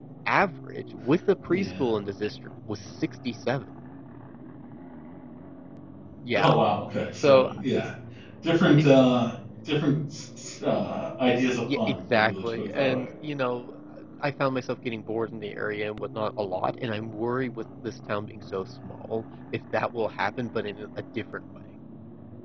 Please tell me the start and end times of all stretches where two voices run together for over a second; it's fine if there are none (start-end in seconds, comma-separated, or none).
11.8-13.0